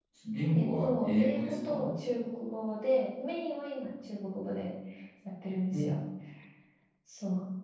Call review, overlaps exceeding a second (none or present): present